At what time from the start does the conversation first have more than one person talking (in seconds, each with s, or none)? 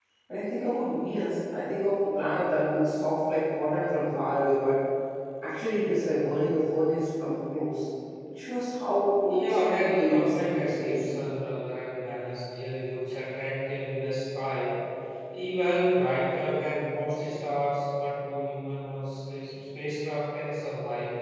9.3 s